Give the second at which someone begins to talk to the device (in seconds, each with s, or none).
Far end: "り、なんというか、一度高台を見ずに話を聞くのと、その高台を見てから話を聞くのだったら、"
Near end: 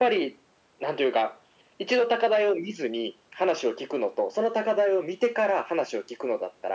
none